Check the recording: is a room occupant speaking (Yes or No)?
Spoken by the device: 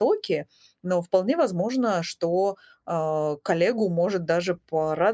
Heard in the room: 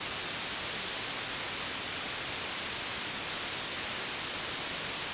No